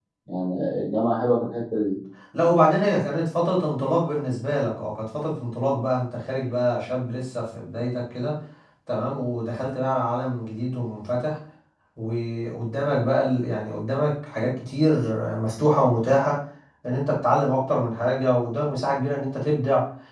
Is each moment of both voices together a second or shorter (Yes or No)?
Yes